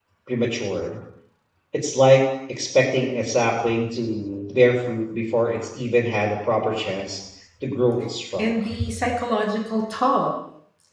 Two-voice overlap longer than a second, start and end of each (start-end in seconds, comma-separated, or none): none